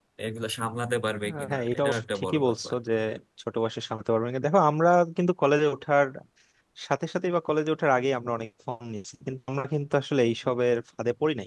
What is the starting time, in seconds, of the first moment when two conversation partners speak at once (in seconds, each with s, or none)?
1.5 s